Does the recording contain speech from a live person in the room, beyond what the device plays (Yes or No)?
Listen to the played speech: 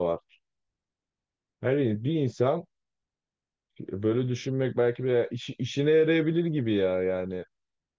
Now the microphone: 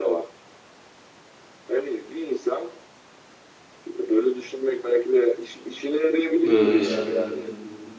Yes